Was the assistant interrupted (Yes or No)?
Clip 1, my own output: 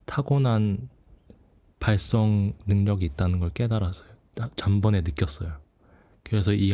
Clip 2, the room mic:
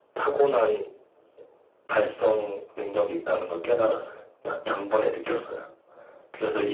No